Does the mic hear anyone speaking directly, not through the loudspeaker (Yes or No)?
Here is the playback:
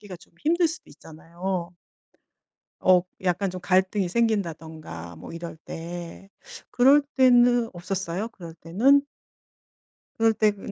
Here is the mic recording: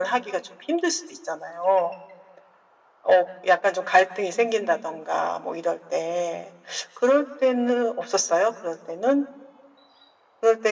No